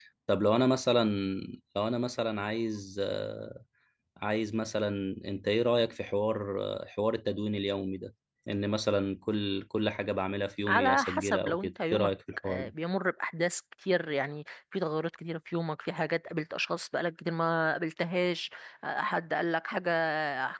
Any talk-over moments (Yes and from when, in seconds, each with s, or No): Yes, from 10.7 s